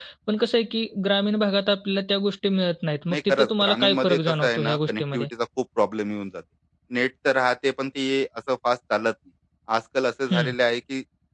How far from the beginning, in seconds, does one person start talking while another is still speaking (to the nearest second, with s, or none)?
3 s